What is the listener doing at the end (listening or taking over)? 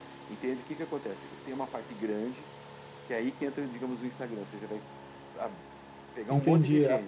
taking over